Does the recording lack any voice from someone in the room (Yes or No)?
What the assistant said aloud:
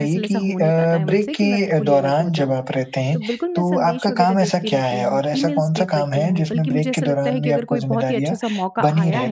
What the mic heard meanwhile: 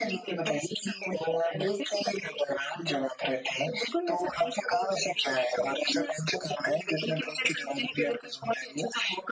Yes